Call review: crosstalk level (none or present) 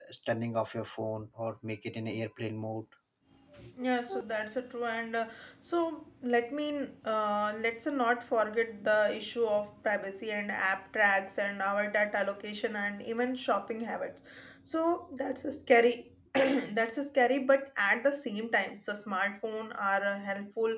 none